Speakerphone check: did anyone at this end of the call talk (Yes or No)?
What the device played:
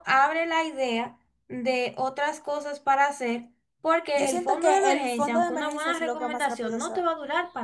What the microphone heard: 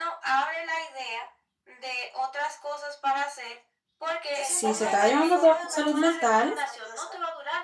Yes